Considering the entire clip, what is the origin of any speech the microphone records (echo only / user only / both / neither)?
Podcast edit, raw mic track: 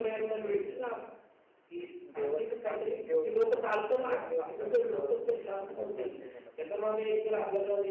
both